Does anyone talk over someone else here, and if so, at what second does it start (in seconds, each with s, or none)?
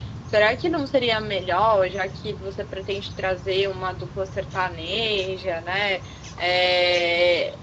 none